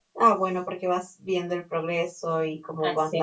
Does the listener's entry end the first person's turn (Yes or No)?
No